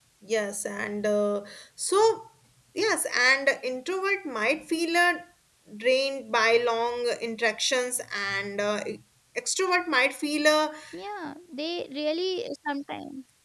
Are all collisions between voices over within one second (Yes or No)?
Yes